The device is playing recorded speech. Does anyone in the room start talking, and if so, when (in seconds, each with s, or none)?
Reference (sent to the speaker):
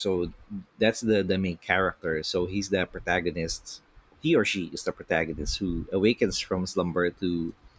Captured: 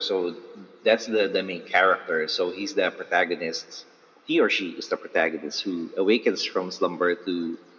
none